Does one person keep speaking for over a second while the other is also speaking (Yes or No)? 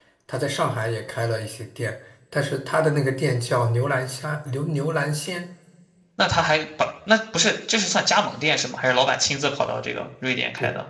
No